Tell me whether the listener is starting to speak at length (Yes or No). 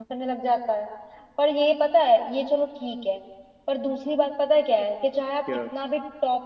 No